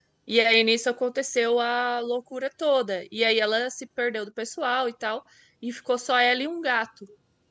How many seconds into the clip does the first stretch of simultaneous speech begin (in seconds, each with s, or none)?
none